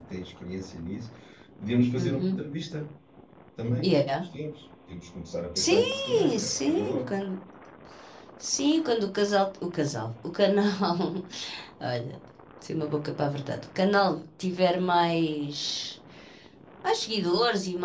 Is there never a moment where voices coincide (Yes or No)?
No